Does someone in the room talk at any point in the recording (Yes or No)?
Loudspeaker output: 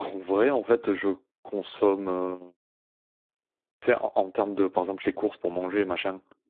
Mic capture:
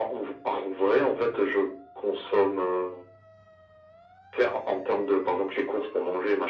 No